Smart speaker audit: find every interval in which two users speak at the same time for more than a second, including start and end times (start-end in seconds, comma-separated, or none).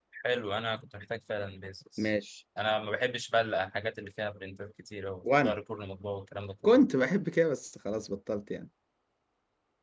none